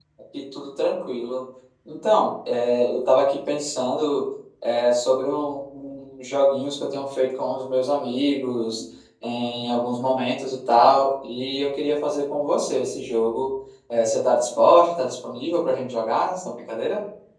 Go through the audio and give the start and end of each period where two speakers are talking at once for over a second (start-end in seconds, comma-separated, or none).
none